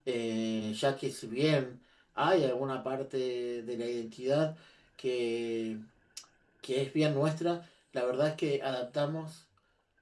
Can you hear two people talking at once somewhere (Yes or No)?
No